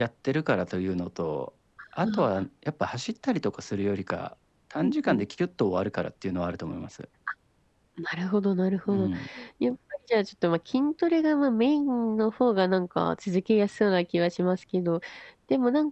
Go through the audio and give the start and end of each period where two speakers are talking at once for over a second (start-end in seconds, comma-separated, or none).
none